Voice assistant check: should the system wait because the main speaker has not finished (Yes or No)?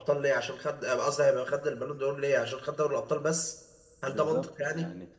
No